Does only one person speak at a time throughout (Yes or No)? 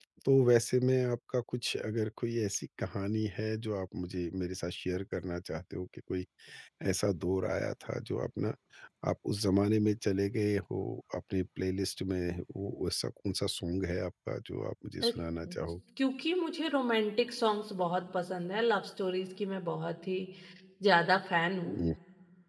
Yes